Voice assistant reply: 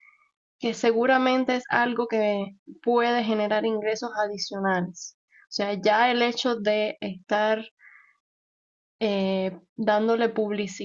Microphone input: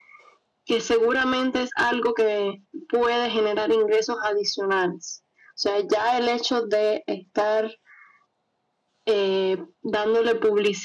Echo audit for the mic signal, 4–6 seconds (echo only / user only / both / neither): echo only